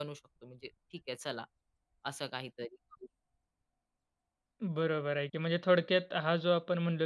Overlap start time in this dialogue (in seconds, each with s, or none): none